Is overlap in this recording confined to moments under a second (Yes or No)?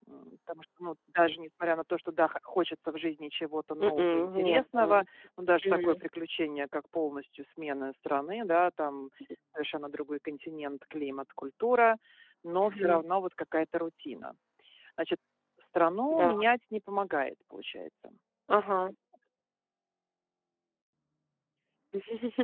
No